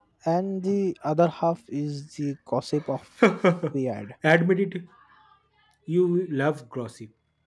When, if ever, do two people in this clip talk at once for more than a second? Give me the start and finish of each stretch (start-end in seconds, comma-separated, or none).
none